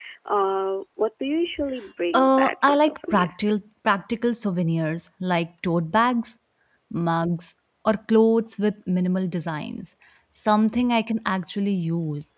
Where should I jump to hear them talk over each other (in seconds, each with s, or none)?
2.1 s